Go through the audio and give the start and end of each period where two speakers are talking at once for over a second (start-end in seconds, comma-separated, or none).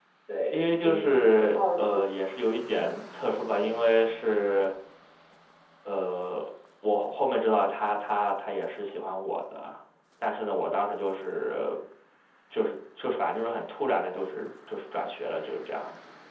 0.5-2.0